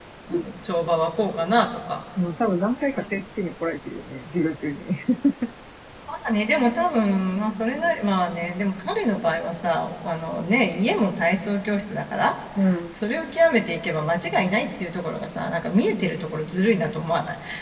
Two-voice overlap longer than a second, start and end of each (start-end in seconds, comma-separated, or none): none